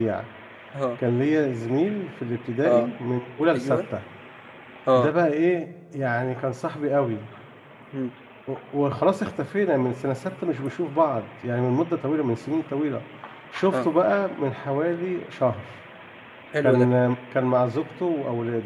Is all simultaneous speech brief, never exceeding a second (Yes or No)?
Yes